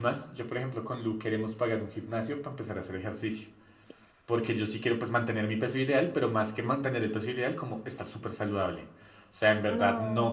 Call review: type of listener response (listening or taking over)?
listening